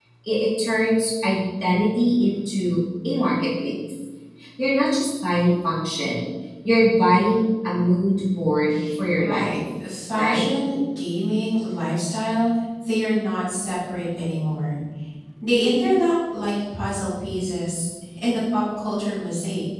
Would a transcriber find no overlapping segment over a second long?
Yes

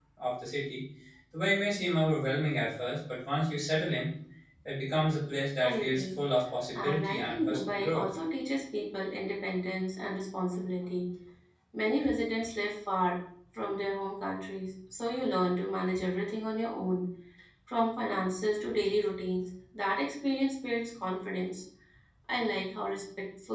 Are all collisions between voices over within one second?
No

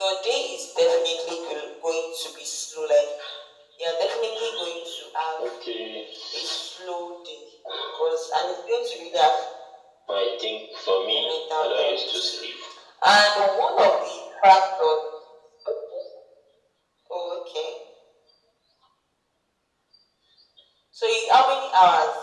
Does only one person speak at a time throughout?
No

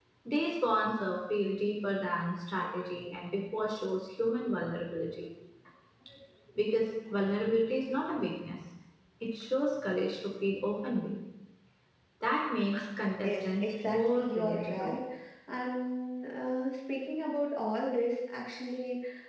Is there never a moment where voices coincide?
No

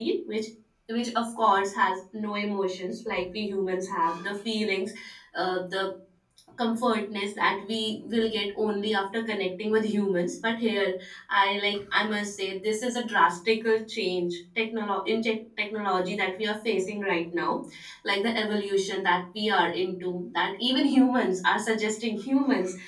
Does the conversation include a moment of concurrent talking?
No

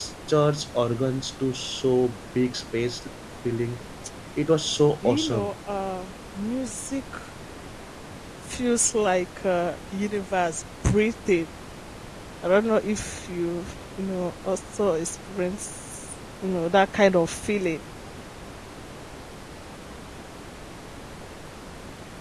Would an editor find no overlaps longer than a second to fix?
Yes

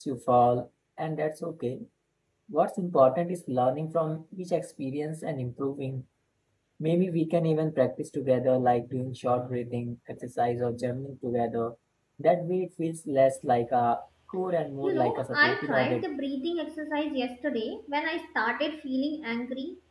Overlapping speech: Yes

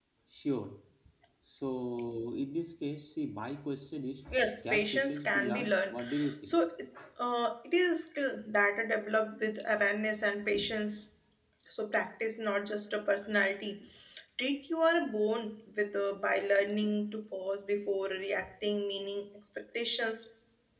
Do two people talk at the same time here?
Yes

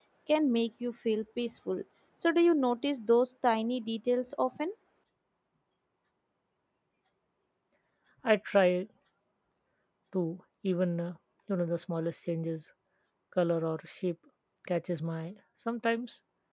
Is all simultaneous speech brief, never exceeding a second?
Yes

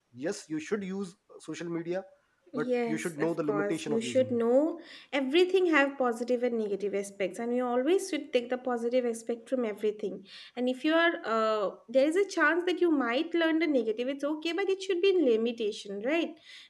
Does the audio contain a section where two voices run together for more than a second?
Yes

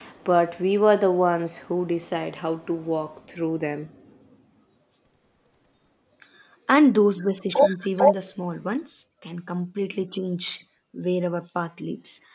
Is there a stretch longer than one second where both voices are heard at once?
No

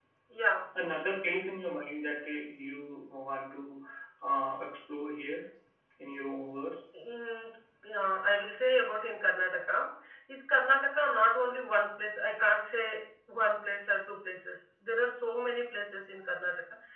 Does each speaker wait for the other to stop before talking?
Yes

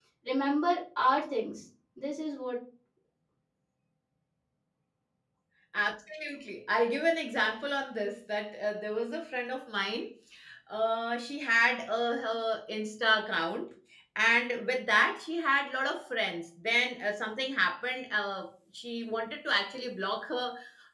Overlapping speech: No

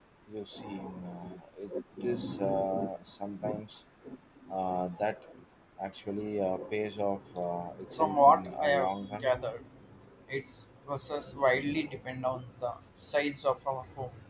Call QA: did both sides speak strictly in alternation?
No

